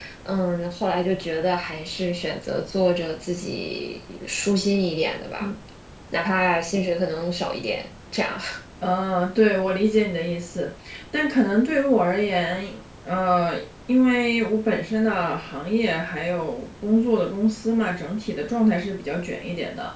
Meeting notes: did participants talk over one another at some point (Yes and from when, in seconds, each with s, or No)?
No